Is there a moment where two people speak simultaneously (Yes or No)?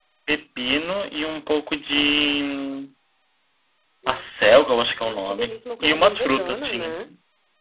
Yes